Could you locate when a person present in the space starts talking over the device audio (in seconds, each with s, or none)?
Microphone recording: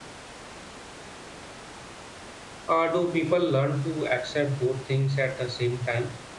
2.7 s